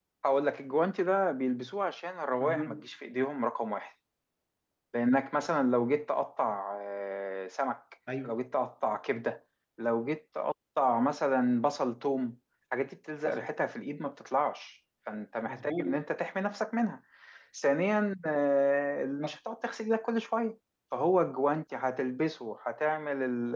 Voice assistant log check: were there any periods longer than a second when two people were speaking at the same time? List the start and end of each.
none

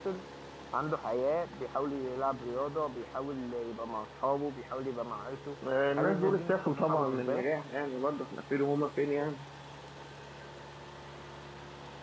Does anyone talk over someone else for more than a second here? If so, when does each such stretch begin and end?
6.0-7.4

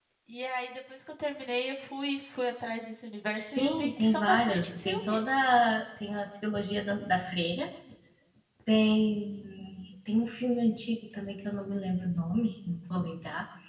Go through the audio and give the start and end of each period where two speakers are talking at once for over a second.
3.4-5.4

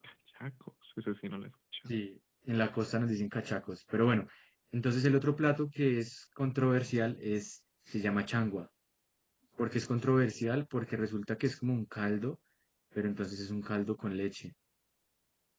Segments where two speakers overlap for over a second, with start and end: none

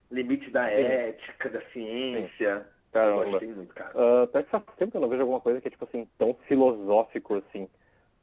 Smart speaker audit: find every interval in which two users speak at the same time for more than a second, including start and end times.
none

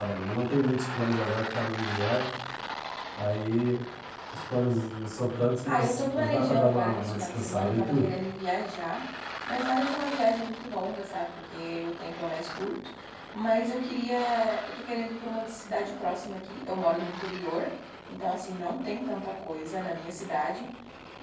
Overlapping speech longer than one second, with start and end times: 5.7-8.1

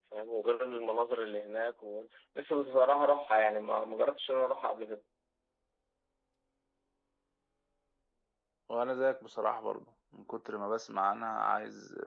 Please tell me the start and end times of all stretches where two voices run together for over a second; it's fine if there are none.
none

